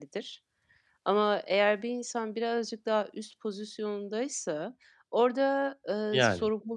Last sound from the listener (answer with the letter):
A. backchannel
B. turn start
A